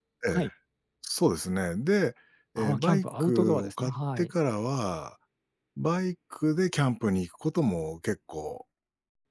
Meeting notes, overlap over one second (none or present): present